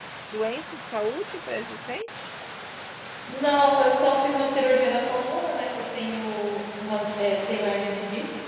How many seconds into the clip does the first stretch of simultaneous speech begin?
none

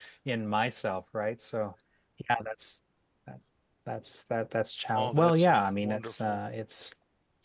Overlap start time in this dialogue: 5 s

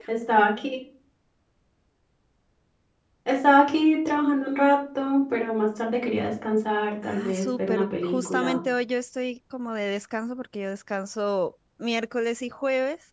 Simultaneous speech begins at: 7 s

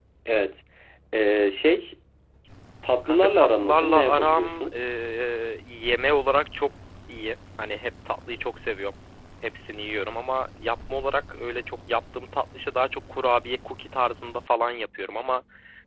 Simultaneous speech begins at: 3 s

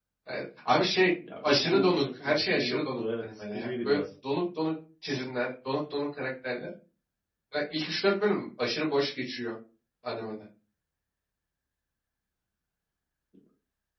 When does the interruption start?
1 s

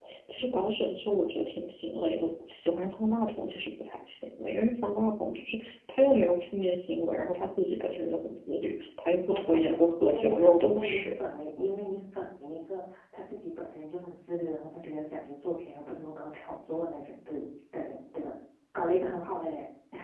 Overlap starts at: 9 s

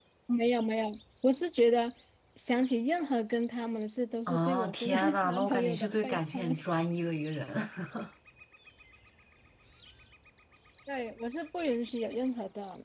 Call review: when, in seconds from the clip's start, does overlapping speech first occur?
4 s

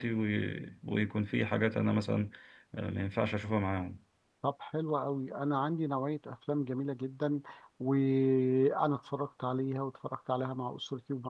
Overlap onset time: none

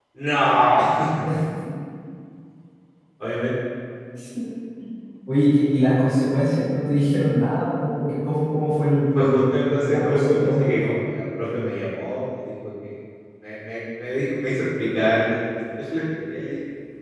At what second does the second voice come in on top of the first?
9 s

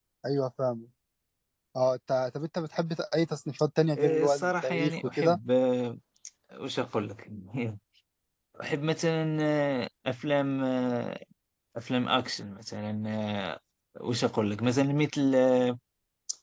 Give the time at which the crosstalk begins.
4 s

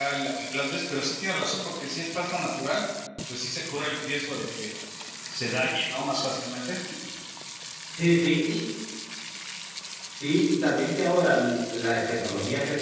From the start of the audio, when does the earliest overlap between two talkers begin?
none

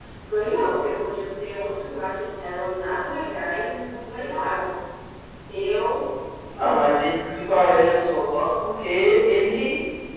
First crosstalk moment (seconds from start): none

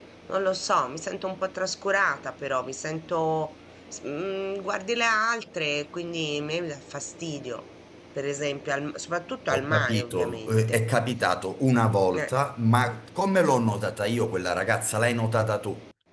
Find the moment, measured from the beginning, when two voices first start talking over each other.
10 s

